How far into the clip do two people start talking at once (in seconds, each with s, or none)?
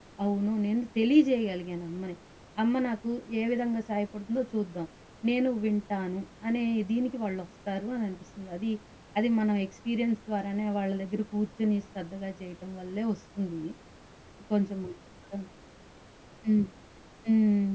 none